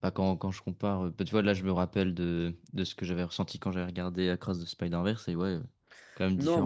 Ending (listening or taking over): taking over